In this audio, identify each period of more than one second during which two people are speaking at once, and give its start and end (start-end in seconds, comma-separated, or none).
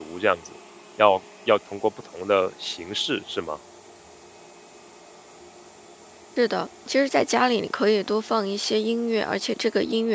none